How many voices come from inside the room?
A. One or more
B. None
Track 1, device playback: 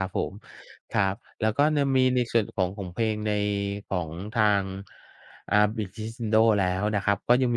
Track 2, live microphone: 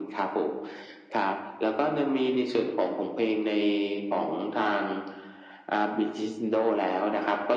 B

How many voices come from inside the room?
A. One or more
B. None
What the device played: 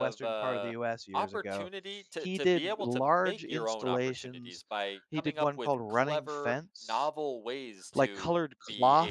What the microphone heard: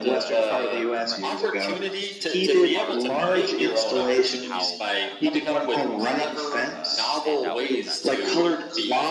A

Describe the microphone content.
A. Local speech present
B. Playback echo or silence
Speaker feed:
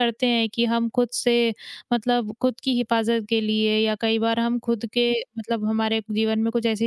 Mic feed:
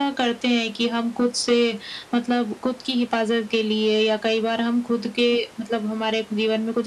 B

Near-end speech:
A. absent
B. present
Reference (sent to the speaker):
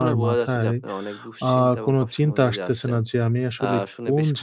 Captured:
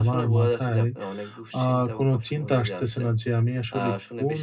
A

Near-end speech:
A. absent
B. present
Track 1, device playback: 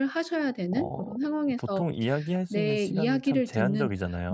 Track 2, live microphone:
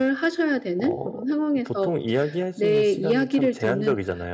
A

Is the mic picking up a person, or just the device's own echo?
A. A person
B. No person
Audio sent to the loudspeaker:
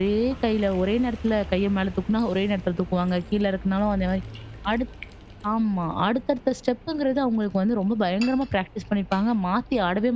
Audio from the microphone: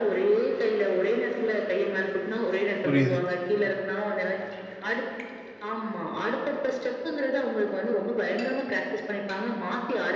A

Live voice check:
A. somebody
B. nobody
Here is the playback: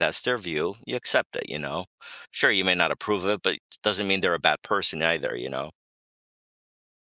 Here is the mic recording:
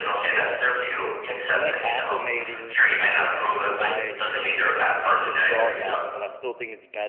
A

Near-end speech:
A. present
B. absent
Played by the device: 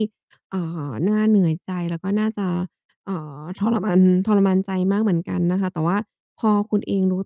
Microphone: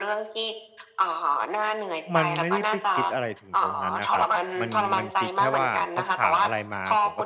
A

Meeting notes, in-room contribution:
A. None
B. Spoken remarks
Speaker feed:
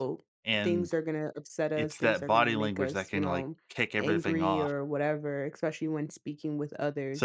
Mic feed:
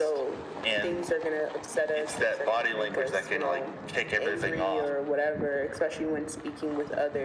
A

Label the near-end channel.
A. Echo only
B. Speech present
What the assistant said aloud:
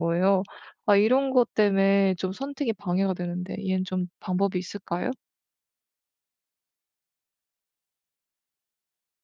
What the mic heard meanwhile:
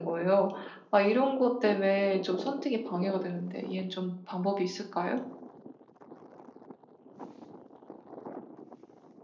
A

